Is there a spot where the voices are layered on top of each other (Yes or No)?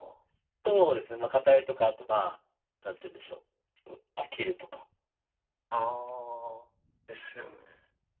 No